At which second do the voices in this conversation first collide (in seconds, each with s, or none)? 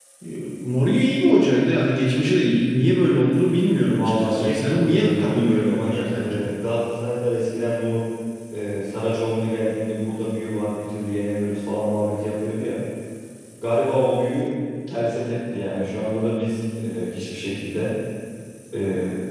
3.9 s